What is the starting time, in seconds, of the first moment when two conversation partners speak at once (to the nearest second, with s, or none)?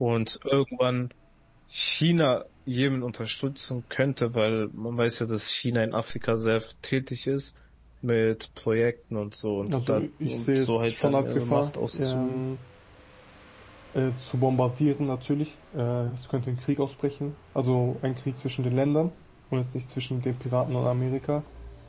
10 s